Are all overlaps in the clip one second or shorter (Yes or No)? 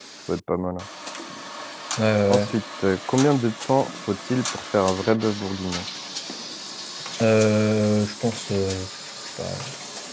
Yes